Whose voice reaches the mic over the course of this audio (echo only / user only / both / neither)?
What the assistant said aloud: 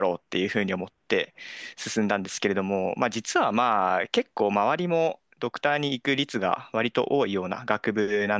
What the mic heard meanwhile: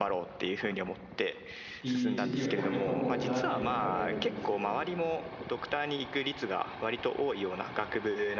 both